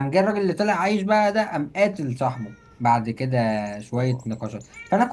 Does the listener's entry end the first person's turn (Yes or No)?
No